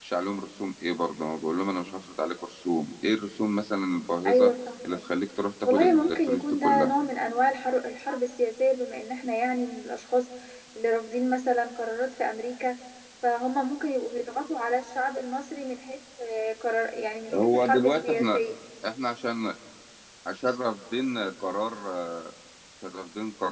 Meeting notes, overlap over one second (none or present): present